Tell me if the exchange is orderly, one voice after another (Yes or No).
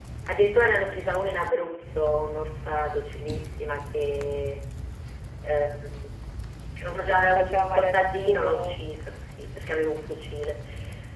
No